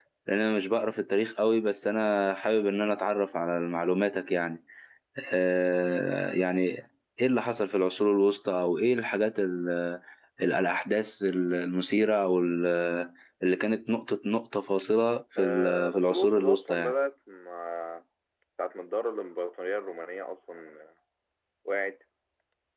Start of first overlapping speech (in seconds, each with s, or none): 15.4 s